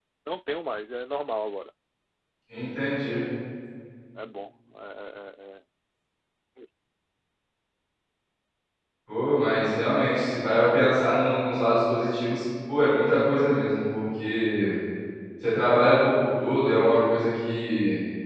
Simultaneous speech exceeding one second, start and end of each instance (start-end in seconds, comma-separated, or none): none